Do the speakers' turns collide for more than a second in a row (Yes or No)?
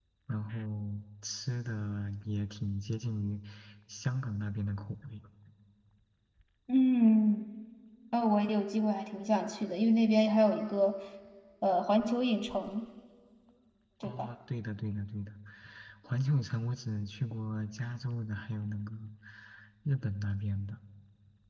No